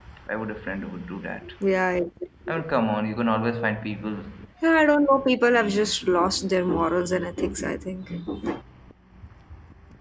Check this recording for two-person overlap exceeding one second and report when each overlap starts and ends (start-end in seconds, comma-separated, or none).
none